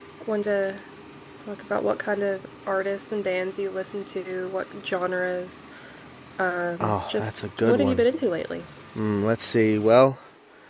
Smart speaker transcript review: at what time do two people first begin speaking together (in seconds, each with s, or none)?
6.8 s